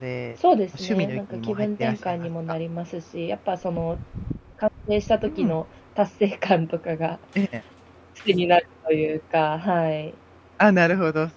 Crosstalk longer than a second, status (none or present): present